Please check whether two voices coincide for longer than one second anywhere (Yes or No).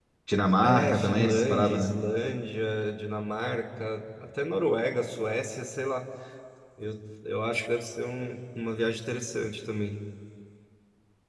Yes